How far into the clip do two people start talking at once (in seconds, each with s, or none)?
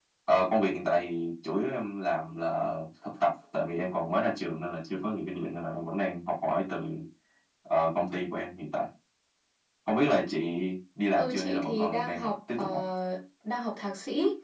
11.2 s